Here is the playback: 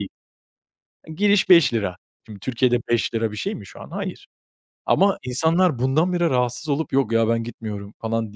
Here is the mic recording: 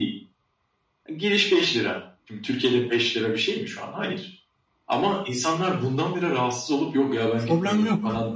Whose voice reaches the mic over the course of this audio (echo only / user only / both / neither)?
both